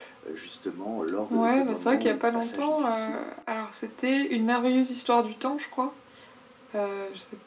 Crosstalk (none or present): present